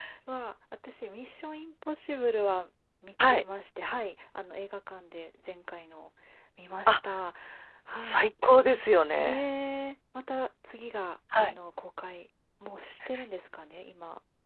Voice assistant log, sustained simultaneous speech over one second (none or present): none